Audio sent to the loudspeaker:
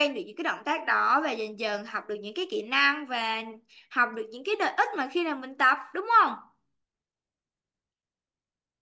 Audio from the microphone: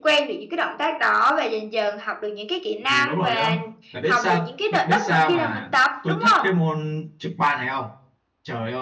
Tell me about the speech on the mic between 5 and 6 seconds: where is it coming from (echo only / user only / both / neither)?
both